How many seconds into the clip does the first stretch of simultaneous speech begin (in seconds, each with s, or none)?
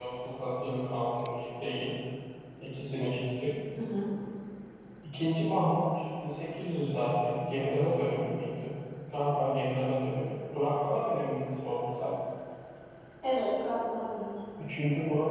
none